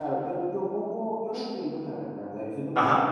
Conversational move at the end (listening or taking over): listening